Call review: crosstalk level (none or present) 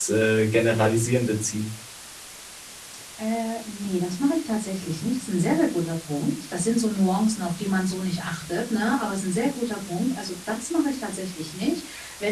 none